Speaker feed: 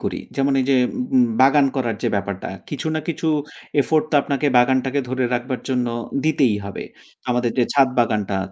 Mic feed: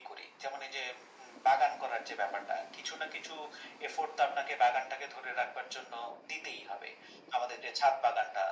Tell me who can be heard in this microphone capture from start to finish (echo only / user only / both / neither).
echo only